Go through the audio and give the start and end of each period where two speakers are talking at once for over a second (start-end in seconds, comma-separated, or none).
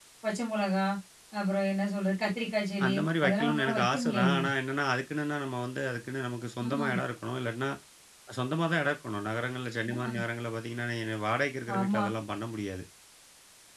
2.9-4.4